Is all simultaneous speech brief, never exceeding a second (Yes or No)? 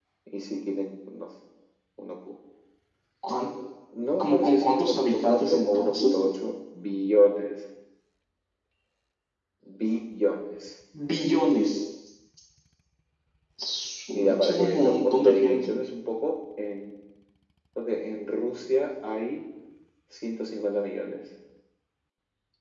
No